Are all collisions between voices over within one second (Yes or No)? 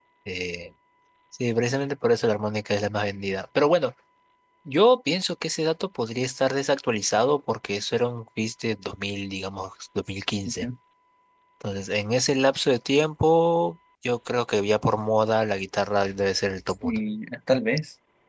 Yes